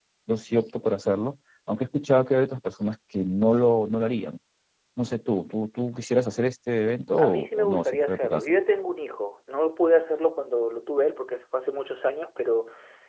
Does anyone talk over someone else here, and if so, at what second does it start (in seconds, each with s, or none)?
7.2 s